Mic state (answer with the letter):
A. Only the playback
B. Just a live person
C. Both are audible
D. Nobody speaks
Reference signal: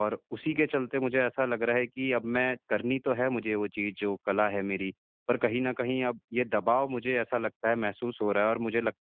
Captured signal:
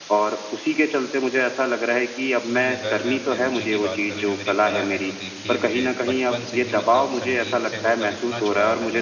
C